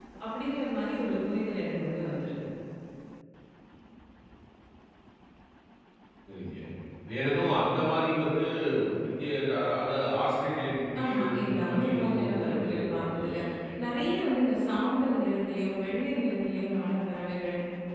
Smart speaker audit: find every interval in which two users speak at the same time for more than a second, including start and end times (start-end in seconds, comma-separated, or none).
11.0-13.4